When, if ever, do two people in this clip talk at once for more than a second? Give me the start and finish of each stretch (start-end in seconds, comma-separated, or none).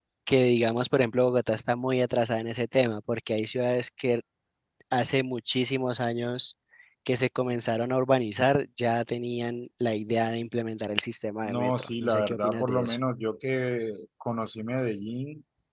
11.4-13.0